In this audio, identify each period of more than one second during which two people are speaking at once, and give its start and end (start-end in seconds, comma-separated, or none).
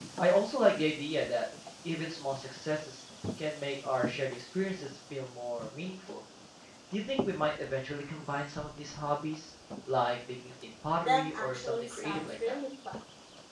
11.0-12.6